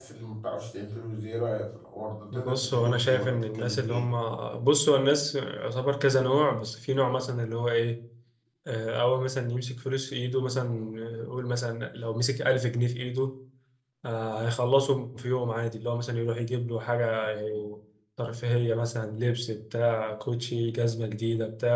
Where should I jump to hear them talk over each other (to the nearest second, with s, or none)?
2 s